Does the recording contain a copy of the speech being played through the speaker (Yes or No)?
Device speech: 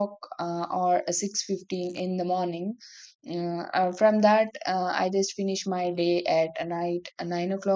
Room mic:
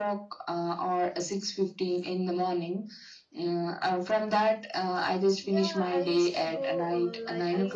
Yes